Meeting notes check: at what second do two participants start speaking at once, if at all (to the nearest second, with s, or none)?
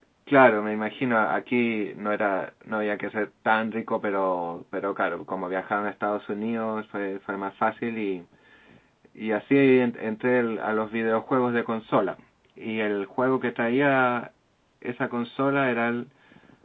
none